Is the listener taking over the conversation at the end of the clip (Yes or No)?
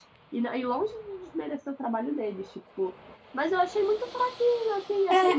No